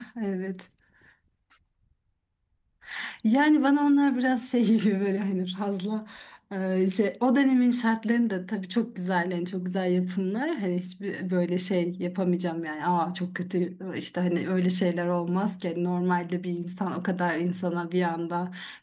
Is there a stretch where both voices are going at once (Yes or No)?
No